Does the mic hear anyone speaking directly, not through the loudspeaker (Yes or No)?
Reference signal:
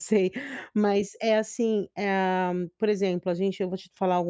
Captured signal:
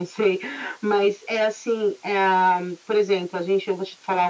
No